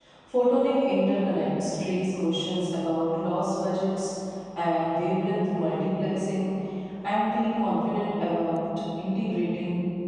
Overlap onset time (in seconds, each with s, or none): none